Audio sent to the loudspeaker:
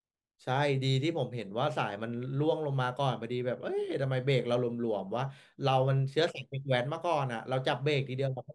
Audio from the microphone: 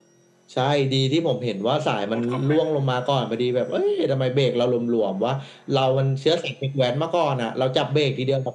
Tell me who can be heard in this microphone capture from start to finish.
both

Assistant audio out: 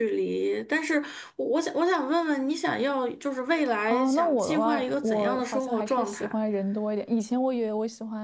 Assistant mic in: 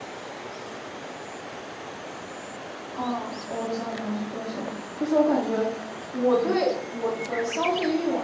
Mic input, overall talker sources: user only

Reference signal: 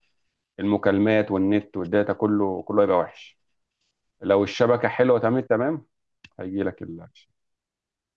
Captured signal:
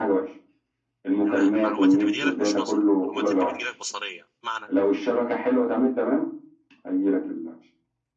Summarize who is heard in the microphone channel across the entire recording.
both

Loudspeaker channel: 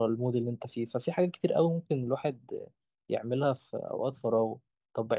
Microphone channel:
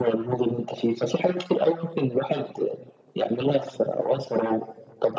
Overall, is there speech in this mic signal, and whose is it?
echo only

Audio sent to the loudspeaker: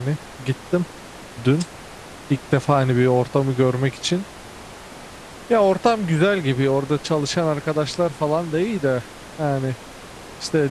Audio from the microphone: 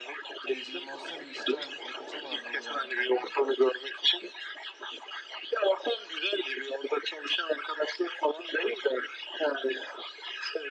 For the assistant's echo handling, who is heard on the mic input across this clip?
both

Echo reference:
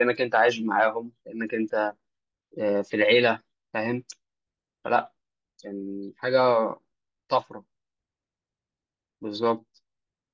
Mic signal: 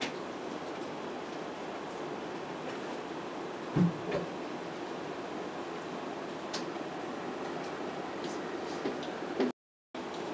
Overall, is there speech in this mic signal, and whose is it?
neither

